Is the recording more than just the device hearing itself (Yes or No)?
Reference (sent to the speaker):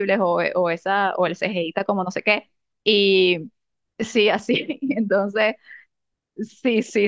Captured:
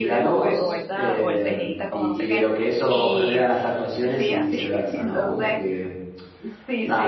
Yes